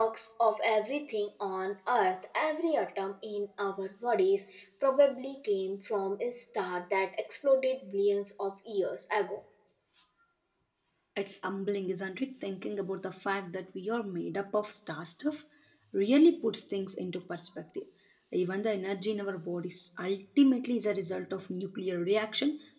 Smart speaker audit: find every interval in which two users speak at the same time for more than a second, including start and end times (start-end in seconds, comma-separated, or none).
none